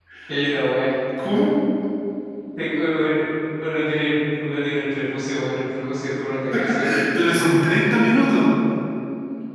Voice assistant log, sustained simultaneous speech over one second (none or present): none